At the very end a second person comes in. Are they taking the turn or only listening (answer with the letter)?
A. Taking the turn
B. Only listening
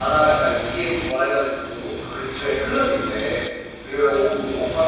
B